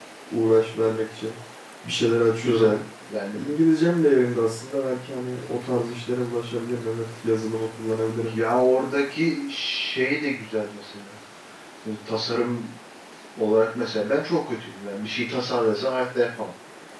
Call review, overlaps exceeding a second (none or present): none